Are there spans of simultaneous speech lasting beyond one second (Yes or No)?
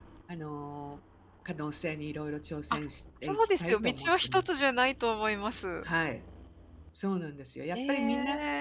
Yes